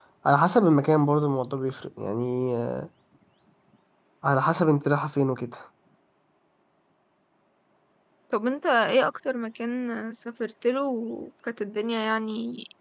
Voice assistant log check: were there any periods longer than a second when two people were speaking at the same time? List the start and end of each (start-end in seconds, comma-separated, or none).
none